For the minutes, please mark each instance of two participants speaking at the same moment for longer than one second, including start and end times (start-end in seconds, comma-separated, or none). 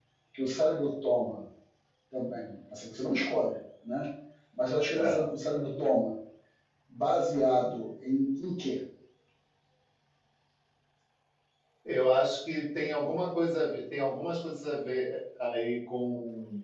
none